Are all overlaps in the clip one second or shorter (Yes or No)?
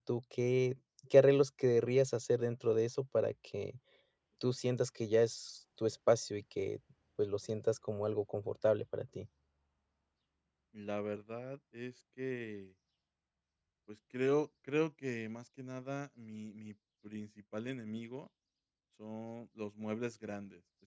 Yes